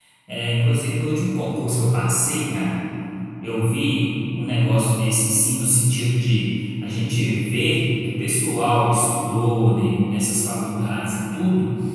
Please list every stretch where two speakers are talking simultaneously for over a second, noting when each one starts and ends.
none

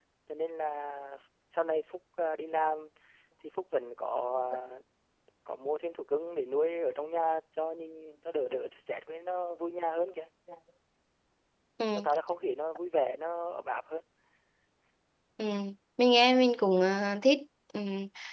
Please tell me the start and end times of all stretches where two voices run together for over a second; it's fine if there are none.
none

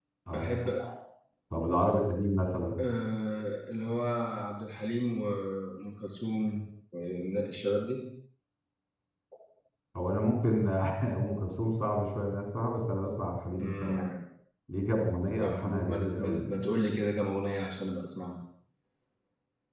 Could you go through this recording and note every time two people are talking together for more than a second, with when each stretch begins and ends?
15.4-16.6

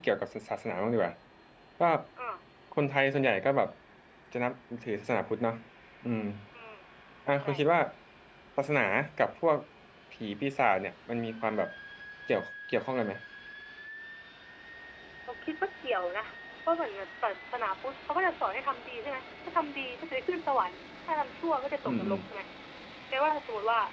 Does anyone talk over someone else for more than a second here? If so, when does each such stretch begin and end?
none

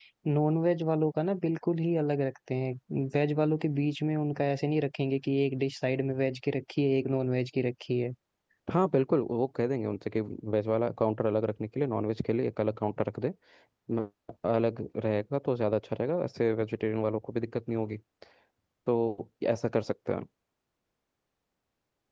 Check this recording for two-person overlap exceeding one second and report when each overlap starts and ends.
none

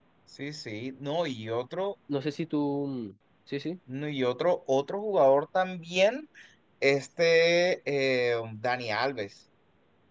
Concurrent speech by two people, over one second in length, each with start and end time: none

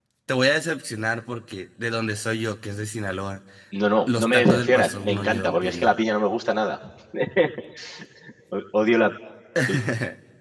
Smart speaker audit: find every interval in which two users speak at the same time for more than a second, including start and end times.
4.1-5.9

